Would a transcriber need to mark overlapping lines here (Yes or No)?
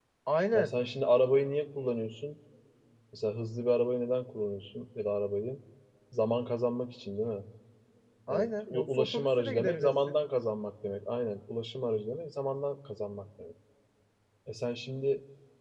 Yes